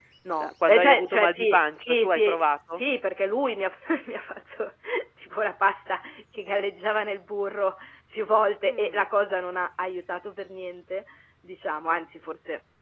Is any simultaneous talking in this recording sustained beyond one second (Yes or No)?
Yes